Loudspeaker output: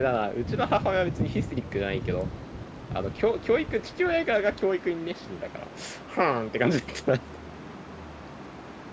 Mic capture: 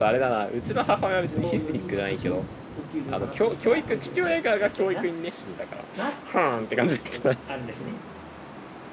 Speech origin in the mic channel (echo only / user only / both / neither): both